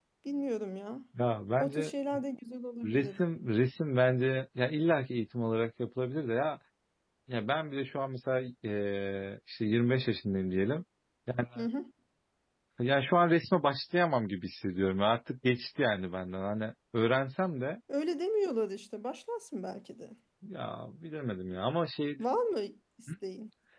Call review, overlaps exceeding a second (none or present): none